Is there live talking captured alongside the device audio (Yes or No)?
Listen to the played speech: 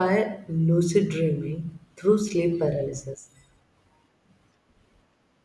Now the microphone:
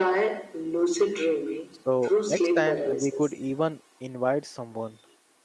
Yes